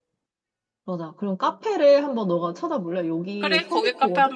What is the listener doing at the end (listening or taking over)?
taking over